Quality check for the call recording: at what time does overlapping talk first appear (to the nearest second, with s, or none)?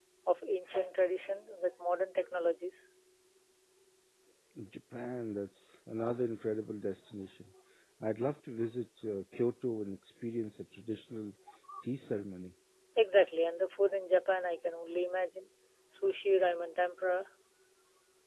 none